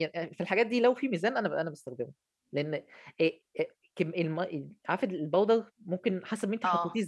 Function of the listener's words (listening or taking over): listening